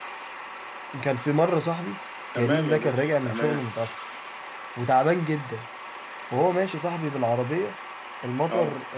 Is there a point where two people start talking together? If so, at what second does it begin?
2.4 s

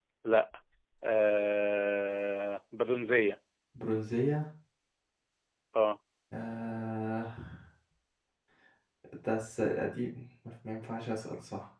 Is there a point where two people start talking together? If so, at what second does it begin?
none

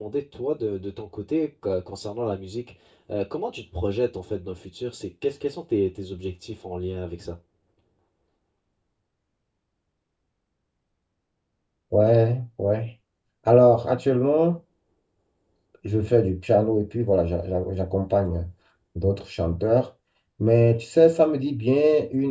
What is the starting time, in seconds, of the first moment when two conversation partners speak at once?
none

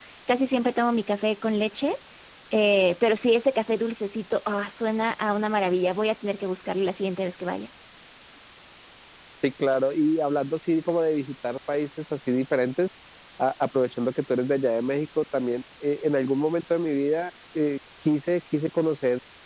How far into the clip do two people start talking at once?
none

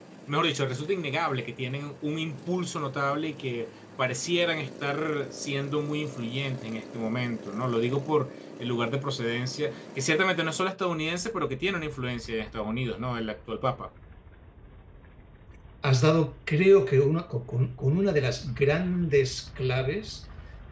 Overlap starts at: none

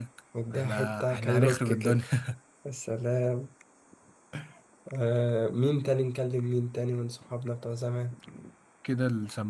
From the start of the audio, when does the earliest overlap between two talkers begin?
0.5 s

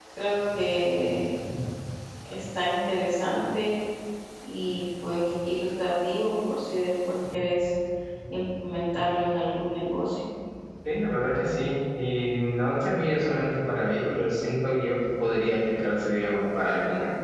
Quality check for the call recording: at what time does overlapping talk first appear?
none

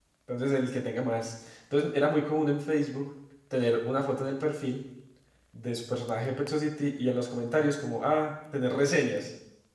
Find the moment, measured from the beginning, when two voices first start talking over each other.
none

